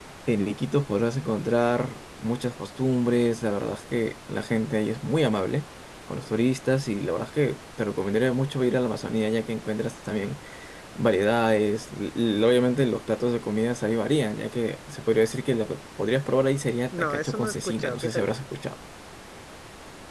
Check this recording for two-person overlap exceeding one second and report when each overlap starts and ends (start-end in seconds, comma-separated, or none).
16.9-18.4